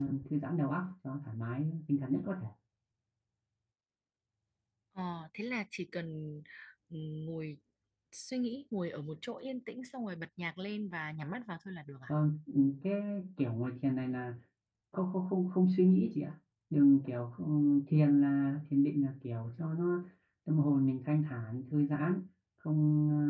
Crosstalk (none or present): none